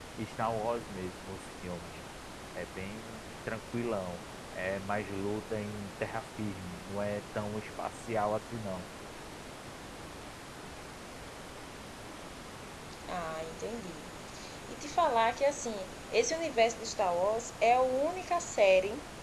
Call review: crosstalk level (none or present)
none